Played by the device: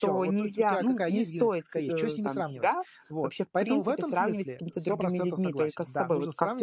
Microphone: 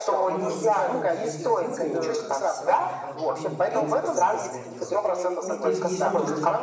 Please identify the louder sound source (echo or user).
echo